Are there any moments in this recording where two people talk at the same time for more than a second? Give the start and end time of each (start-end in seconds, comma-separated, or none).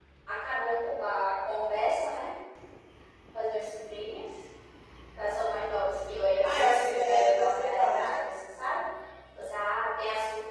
6.4-8.2